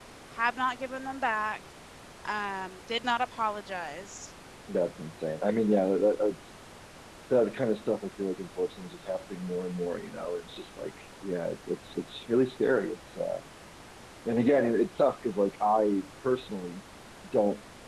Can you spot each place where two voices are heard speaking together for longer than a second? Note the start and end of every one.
none

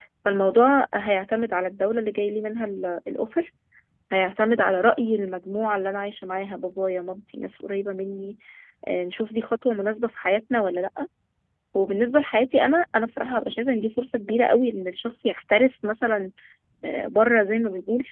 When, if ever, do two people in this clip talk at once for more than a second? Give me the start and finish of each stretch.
none

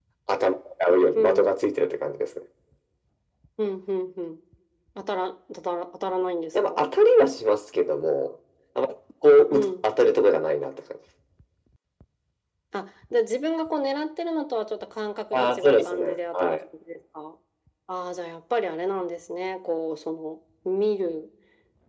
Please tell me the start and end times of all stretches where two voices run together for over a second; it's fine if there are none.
15.3-16.5

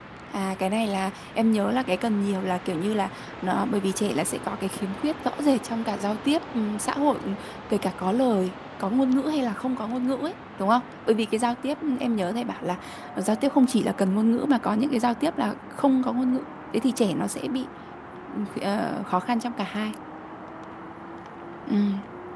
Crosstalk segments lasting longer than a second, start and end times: none

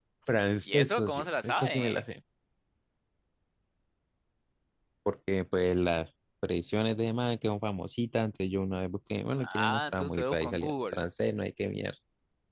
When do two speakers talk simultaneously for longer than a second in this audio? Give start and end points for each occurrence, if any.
0.6-2.0, 9.4-11.0

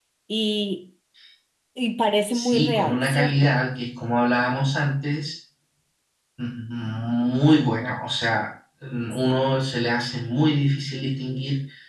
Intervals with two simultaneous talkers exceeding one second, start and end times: 2.3-3.5

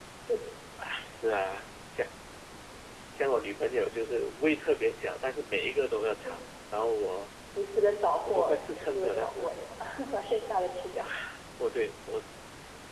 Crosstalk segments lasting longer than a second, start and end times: 8.3-9.5

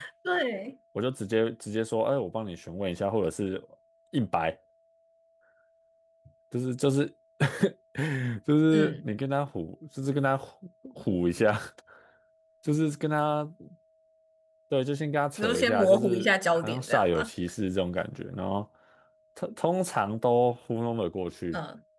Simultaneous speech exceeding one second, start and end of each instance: 15.4-17.3

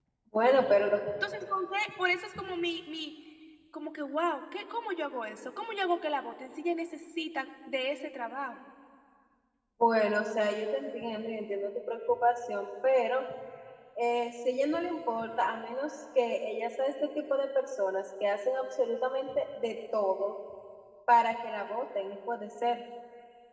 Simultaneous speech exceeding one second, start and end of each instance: none

